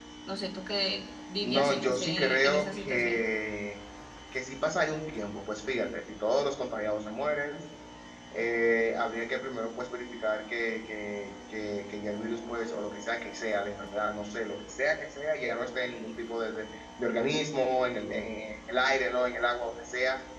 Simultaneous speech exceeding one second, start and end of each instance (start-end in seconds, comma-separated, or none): 1.4-3.2